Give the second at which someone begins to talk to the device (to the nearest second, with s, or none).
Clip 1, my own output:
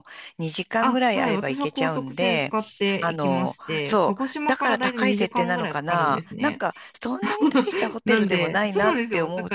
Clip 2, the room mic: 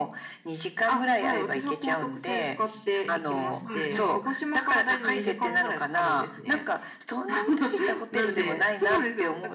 4 s